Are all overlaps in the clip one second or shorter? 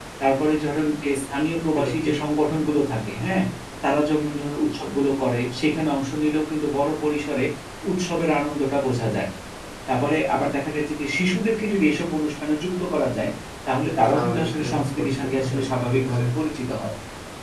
No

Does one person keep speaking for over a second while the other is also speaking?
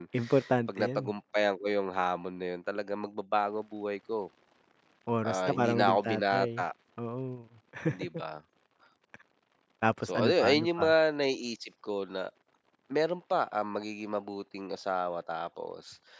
Yes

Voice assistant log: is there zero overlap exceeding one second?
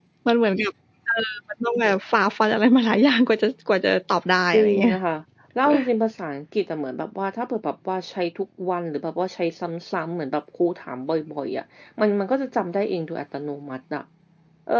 Yes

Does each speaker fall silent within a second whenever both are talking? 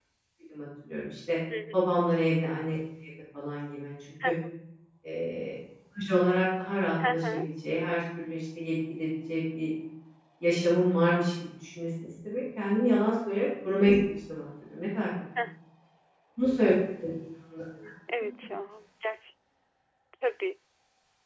Yes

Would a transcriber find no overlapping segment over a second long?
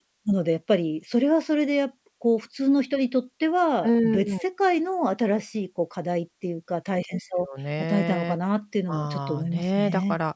No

